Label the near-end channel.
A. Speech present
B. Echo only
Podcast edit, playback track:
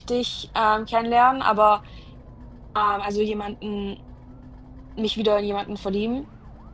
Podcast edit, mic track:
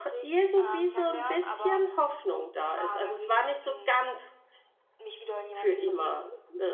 A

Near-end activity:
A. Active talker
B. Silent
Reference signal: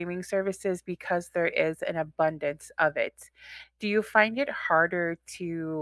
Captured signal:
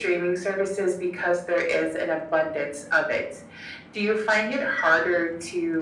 B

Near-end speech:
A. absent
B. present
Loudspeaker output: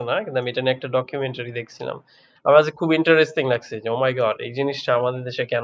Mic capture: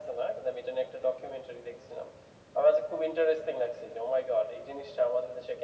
A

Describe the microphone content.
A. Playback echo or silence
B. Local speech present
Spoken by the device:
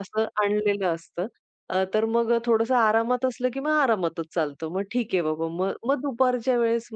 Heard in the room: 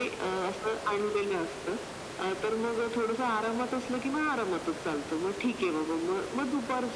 A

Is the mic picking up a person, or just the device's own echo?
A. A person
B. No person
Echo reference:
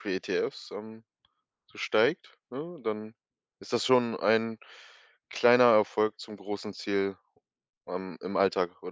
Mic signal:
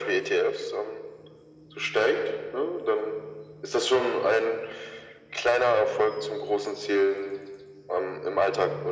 B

